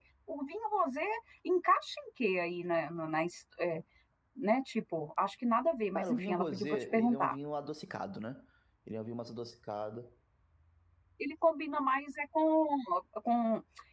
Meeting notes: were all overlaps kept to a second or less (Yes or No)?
No